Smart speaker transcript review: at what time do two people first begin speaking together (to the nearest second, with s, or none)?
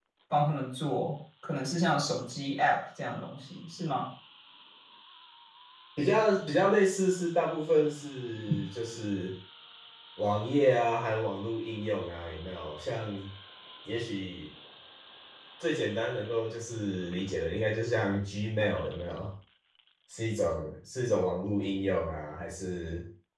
none